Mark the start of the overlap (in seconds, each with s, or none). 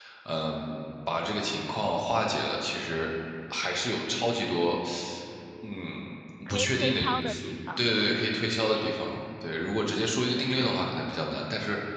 6.5 s